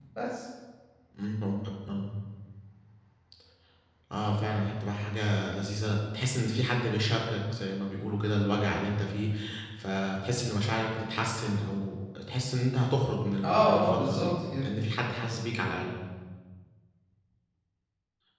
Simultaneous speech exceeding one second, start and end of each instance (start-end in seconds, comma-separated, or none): 13.4-14.6